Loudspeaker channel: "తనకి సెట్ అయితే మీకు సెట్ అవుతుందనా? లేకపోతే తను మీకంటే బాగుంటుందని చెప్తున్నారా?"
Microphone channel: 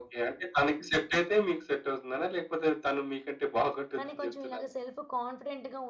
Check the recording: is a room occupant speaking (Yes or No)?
Yes